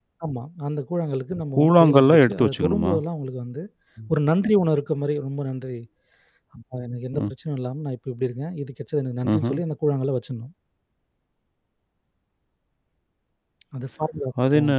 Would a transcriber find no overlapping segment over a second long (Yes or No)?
No